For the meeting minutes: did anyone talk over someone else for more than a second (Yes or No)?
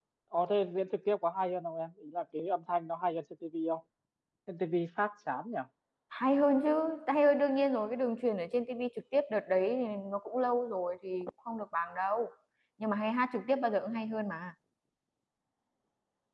No